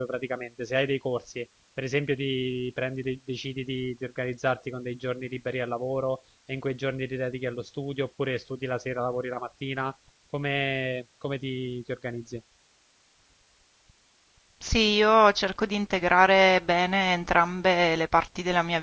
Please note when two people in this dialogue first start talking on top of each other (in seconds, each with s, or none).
none